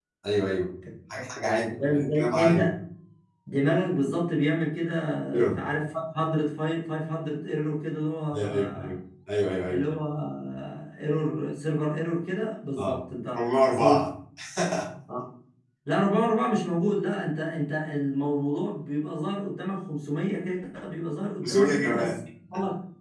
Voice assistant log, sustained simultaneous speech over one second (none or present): present